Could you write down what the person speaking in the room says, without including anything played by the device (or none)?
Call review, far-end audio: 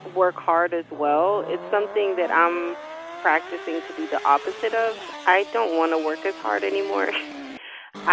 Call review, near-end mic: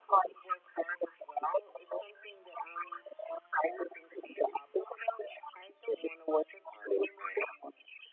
none